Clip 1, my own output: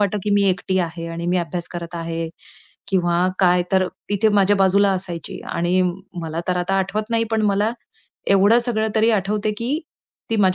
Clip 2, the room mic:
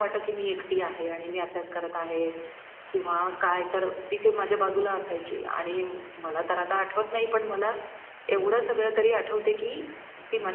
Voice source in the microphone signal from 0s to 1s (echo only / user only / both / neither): echo only